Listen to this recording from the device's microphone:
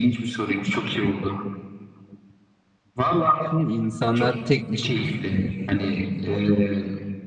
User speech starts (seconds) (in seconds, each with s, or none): 3.2 s